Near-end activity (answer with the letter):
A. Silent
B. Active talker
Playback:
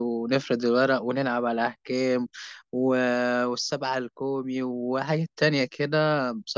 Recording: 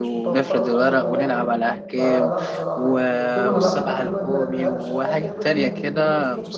B